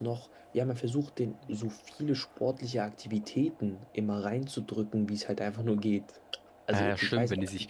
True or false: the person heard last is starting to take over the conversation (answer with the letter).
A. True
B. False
A